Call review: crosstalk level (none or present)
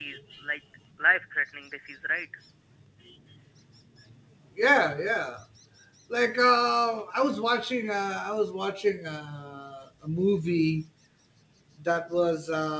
none